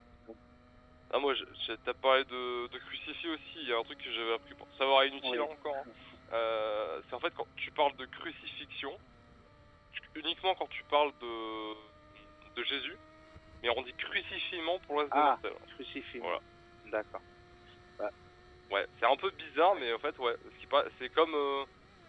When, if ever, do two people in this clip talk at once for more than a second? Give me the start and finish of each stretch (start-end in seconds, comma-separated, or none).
none